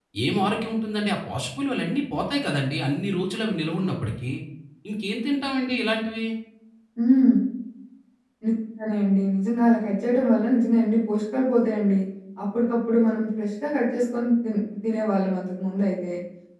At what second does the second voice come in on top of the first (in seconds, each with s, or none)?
none